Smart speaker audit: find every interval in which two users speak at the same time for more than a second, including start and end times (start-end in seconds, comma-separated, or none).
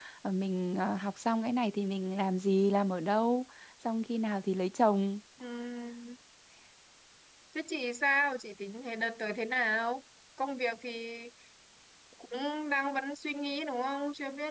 none